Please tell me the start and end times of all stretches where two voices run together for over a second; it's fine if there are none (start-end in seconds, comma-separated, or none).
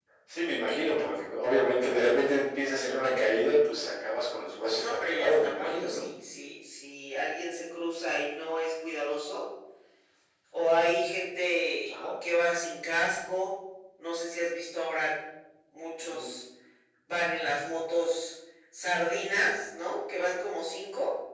4.7-6.0